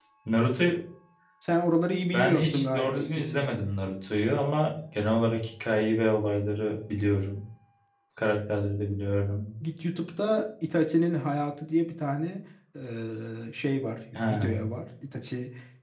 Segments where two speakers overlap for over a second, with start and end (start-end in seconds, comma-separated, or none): 2.1-3.5